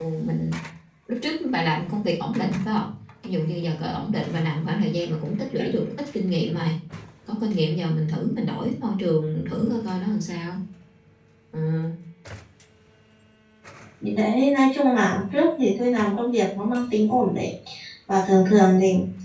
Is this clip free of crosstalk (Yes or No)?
Yes